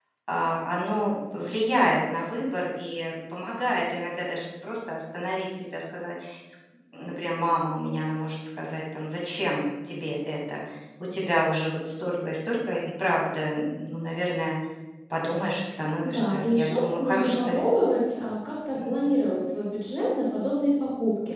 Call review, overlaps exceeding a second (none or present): present